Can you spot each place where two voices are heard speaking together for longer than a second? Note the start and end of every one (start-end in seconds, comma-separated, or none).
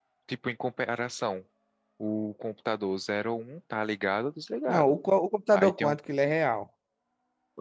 none